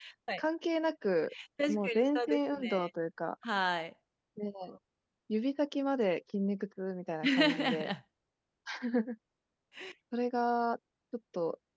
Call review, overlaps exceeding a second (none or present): present